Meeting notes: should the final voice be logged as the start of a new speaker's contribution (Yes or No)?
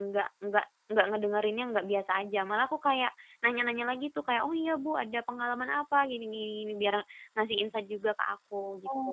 Yes